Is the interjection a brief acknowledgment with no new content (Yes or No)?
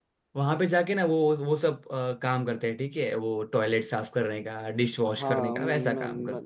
No